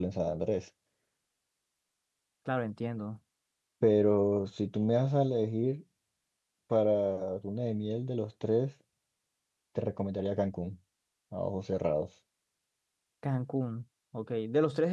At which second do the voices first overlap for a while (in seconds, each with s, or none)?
none